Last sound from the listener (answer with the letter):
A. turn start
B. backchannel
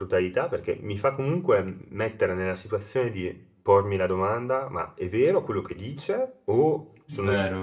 B